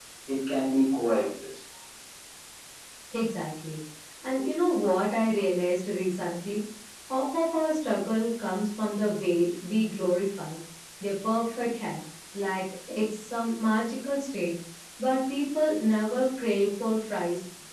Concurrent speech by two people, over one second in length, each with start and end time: none

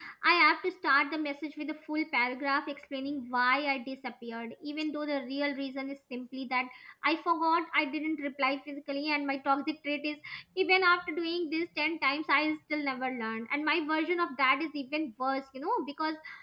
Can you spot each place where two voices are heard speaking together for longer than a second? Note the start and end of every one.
none

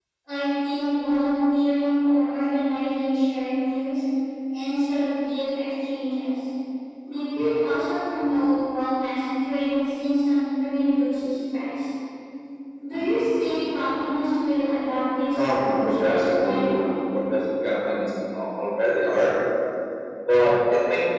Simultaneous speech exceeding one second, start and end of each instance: 15.4-17.0

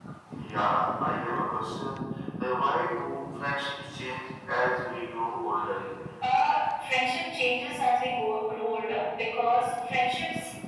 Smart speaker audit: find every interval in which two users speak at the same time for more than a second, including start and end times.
none

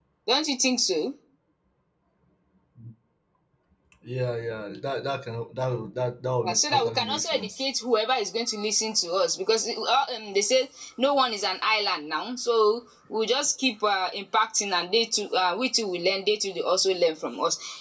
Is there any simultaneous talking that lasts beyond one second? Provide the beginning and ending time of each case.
6.4-7.6

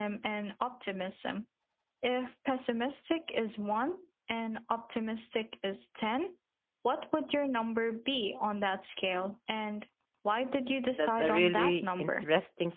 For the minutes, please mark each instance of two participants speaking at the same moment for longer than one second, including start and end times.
11.0-12.3

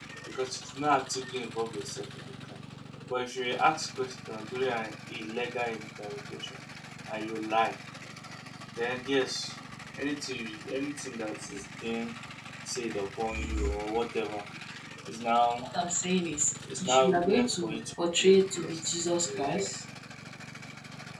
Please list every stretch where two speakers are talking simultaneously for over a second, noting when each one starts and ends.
16.8-18.8

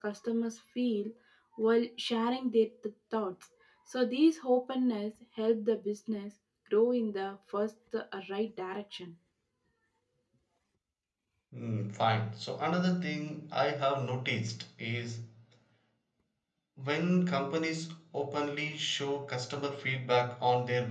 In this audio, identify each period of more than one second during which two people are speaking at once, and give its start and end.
none

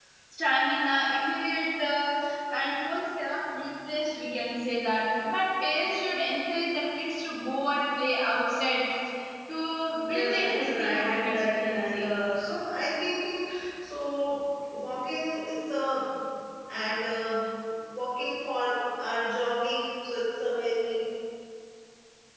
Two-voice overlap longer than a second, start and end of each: 10.1-12.1

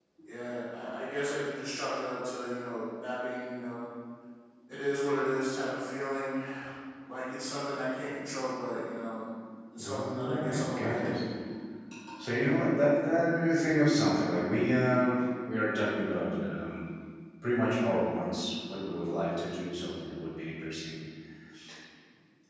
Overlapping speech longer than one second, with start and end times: 9.8-11.2

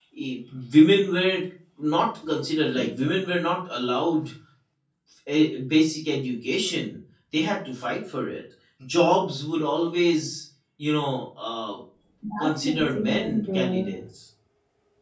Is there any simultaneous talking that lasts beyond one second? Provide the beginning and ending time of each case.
12.4-13.9

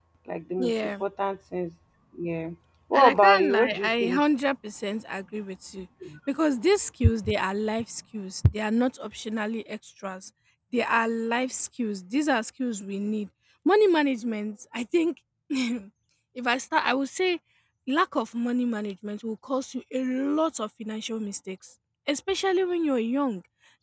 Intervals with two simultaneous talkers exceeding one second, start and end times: 2.9-4.2

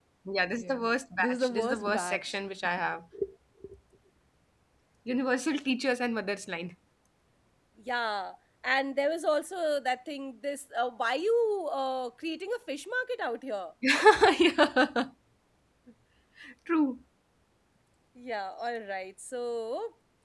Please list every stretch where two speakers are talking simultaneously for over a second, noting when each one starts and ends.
0.6-2.4

